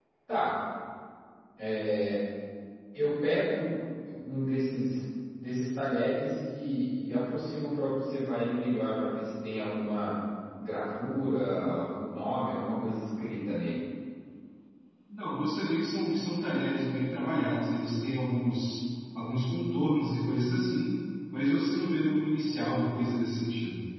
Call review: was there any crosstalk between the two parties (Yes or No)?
No